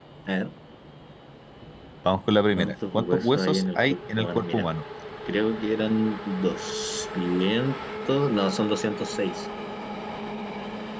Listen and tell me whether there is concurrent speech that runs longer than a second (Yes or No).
Yes